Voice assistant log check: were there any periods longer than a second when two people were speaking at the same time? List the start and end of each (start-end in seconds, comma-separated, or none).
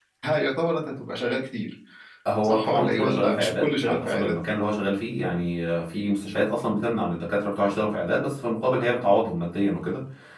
2.4-4.3